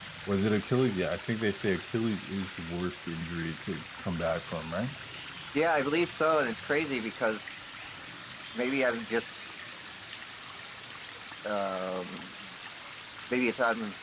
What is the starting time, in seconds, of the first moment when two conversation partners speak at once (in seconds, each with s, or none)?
none